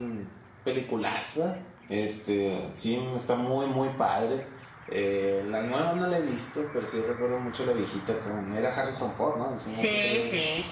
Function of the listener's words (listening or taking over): taking over